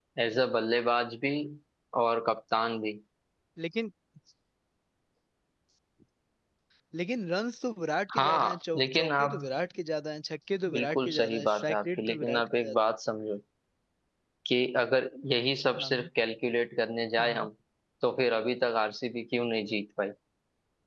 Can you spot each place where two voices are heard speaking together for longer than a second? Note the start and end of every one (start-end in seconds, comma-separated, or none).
8.2-9.4, 10.7-12.8